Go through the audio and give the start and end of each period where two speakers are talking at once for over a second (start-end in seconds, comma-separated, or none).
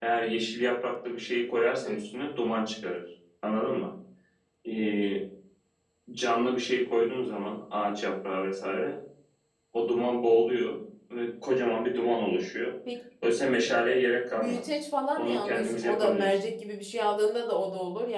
15.2-16.4